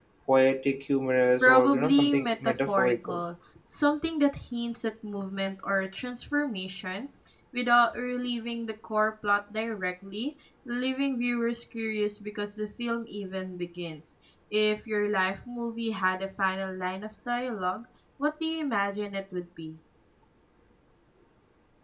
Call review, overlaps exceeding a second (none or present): present